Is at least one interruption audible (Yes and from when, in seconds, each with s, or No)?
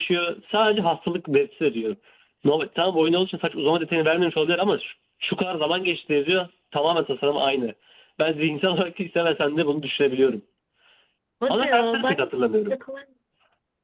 Yes, from 11.5 s